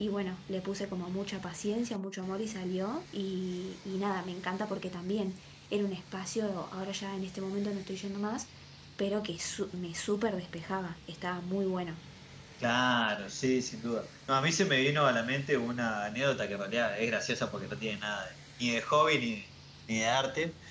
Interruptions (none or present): none